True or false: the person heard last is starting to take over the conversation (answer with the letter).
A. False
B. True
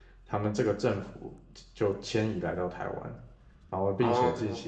A